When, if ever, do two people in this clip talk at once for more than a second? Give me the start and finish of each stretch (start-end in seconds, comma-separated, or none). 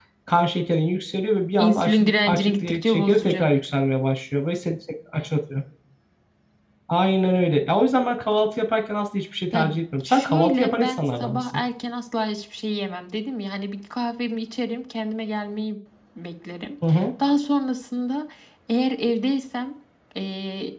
1.6-3.5, 10.0-11.4